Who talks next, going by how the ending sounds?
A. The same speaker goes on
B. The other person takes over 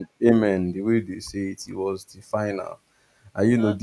A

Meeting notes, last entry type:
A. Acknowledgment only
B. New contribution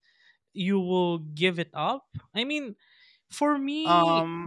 B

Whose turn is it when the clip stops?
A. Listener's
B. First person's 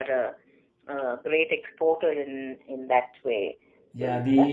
A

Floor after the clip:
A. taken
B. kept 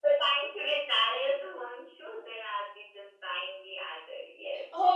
A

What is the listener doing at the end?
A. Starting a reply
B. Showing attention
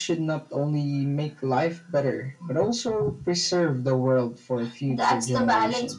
A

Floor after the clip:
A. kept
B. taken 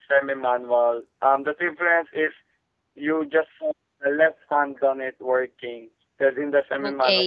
B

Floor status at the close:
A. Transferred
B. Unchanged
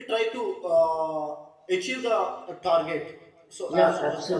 A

